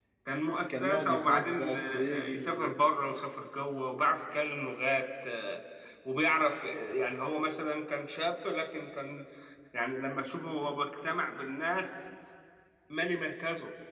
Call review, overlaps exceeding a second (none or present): present